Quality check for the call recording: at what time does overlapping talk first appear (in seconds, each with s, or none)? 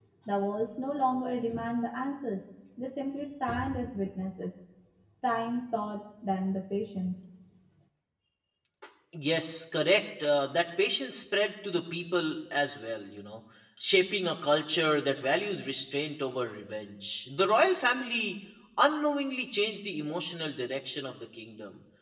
none